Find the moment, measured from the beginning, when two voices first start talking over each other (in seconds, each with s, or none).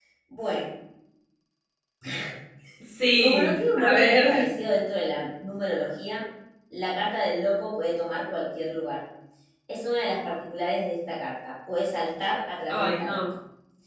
3.2 s